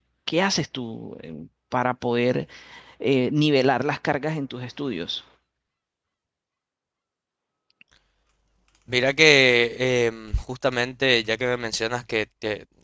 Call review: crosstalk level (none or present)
none